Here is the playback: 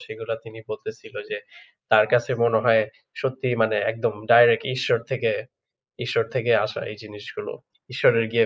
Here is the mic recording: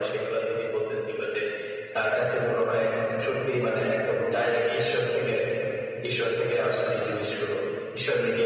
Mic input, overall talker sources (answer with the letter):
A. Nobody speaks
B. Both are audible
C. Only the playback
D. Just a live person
C